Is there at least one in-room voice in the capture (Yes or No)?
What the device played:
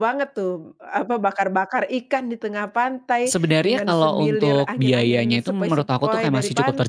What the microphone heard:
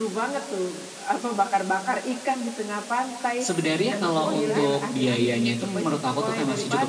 Yes